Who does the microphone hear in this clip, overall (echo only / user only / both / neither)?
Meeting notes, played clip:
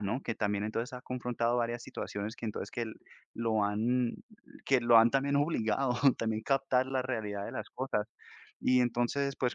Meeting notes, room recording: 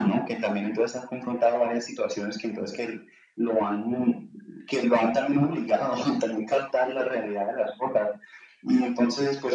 echo only